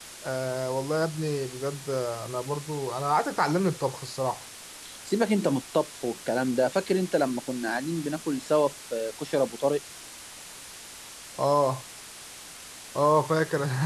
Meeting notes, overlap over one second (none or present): none